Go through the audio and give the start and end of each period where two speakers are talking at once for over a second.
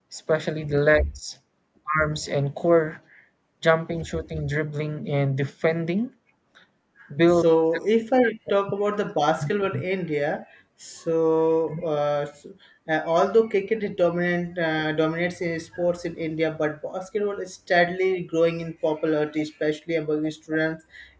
none

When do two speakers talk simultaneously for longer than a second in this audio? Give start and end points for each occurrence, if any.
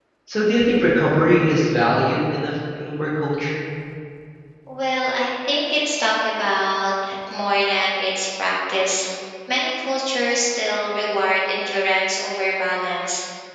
none

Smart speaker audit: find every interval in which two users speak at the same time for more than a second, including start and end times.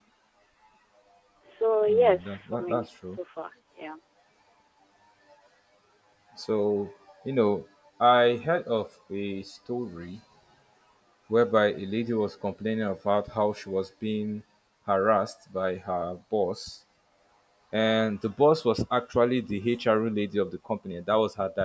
1.9-3.2

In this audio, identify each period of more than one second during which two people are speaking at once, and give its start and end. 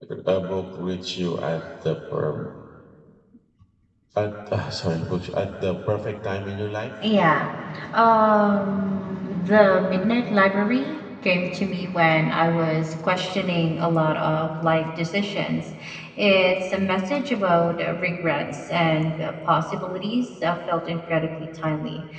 none

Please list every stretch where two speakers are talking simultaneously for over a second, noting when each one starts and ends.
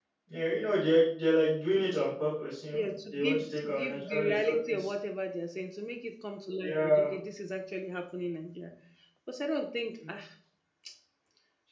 2.7-4.9

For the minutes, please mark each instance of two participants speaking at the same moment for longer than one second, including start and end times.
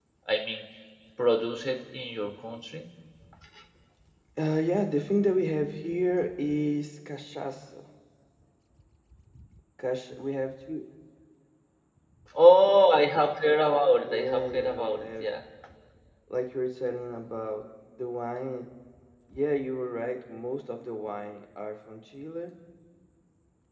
14.0-15.3

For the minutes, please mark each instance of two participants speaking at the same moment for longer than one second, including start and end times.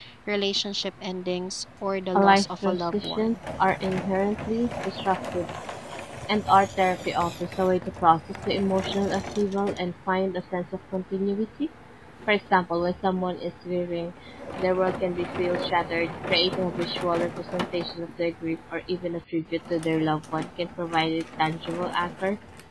2.2-3.4

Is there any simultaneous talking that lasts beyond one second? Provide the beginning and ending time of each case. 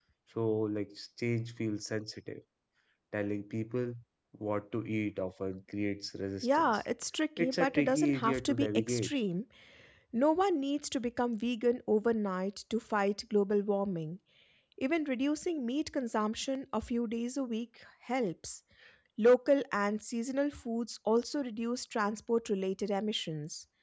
7.4-9.1

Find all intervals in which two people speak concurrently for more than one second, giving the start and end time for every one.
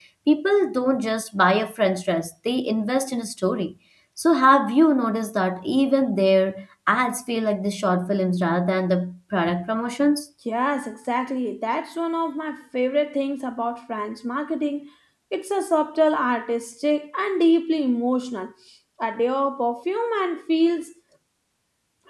none

